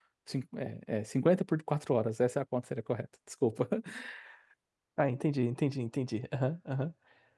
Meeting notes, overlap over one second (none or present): none